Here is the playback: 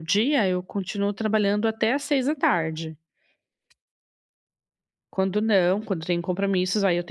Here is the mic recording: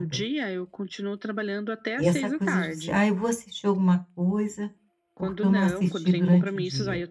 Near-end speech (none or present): present